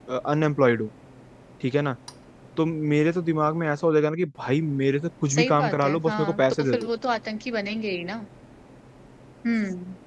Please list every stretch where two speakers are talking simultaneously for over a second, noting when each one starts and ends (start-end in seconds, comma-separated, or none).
5.3-6.9